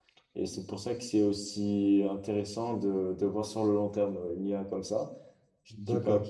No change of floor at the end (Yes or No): Yes